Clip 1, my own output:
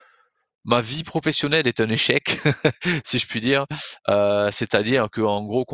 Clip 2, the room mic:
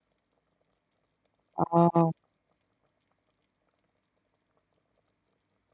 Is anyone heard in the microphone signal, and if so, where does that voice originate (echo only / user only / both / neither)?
user only